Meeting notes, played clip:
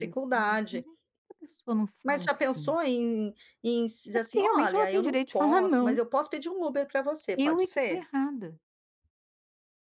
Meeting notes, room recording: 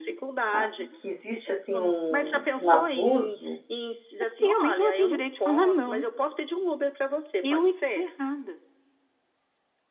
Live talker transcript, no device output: a que existe, assim, um um abuso

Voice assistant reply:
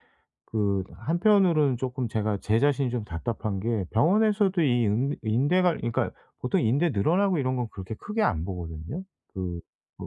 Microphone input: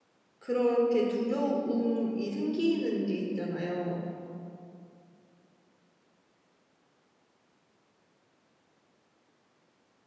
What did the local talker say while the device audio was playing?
그렇게 두려움이 생기는 게 있잖아요.

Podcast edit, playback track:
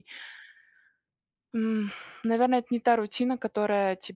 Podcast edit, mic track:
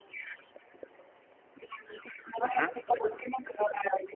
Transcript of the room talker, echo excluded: мгм.

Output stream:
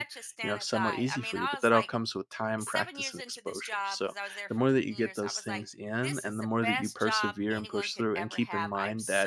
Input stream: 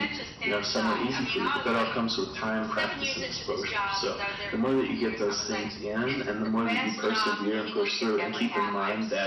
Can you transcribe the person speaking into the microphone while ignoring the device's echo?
none

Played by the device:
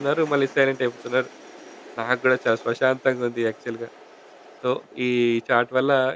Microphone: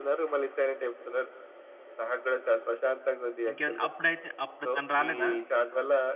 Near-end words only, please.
ఇంకే అప్పుడైతే అప్పుడు తను రాలేదా?

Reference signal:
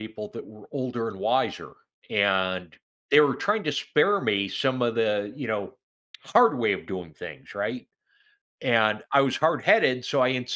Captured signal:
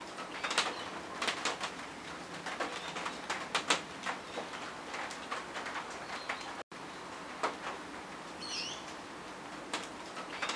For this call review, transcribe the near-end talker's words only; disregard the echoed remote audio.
none

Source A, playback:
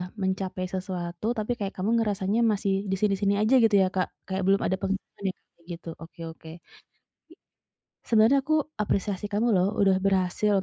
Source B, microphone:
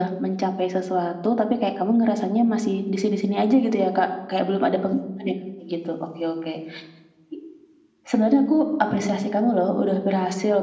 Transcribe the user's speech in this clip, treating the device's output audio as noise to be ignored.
none

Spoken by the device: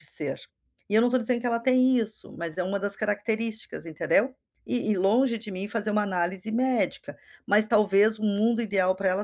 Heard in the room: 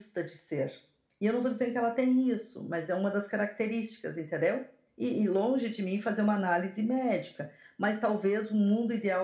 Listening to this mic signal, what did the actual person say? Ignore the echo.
none

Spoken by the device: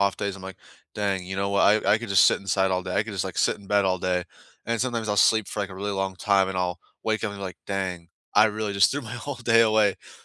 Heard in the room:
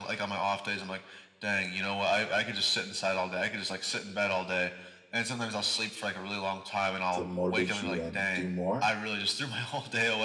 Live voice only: to motivate you and do more

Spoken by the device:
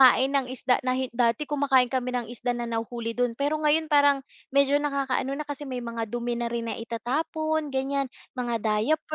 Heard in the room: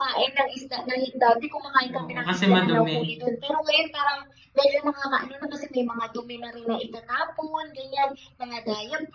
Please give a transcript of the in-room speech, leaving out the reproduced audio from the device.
oo, kasi madumi.

